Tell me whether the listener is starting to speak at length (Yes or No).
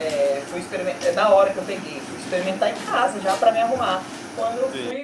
Yes